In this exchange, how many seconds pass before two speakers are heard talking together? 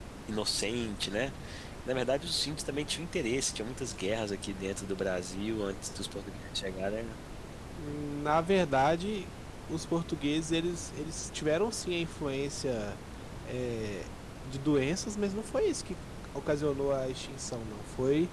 none

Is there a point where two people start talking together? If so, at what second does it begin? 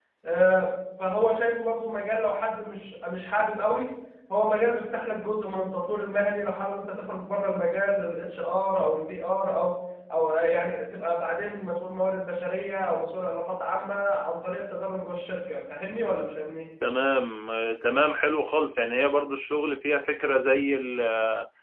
none

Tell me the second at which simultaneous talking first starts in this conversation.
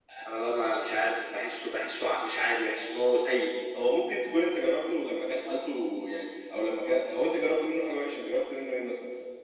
none

